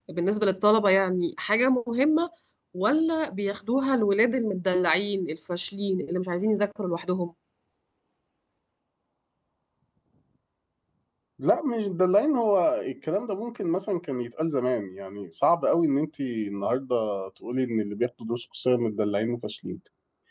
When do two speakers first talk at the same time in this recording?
none

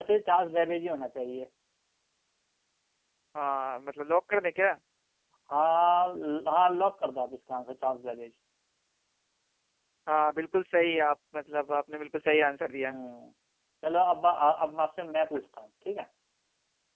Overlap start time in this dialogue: none

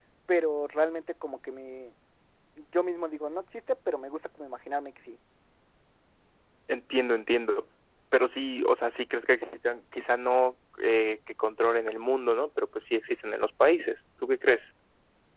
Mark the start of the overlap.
none

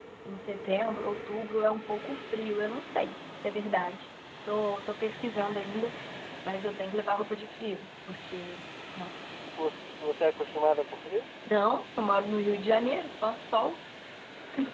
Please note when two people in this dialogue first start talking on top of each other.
none

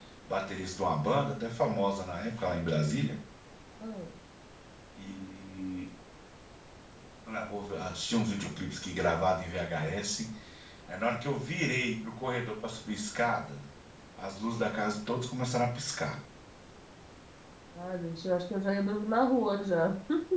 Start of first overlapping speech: none

